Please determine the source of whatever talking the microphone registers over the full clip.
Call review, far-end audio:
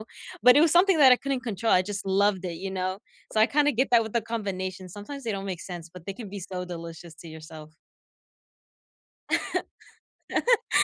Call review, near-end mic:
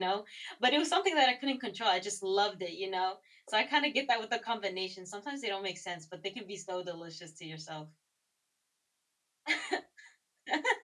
echo only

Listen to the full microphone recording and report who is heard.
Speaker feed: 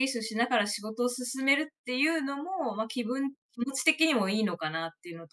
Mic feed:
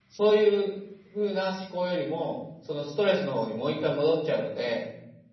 user only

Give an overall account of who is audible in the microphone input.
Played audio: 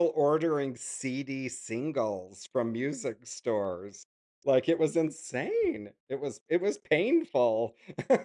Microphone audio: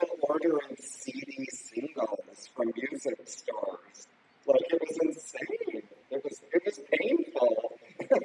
echo only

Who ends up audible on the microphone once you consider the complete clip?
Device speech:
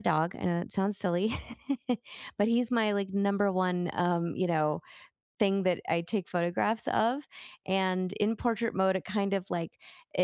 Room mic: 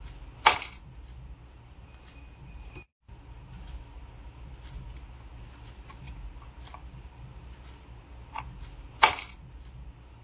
neither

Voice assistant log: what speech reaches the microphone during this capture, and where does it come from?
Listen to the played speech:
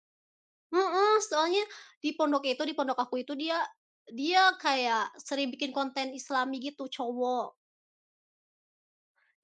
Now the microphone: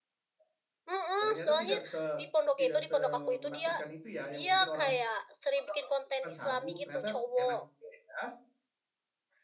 both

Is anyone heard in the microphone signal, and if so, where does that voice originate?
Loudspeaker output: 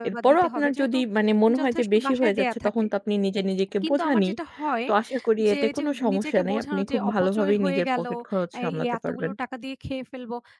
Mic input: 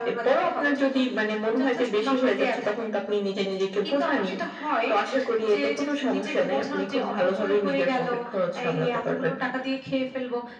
echo only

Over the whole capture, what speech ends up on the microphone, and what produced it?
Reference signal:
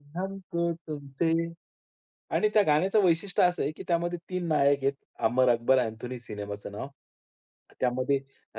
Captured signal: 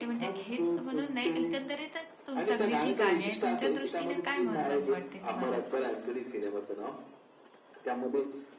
both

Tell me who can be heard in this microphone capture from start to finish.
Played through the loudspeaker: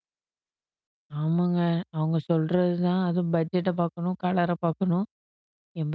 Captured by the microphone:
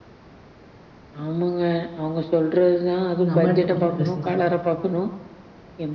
both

